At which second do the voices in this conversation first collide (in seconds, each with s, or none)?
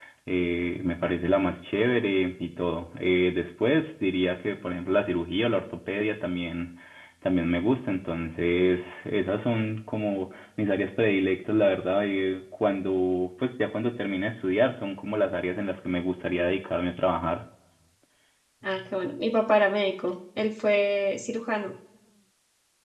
none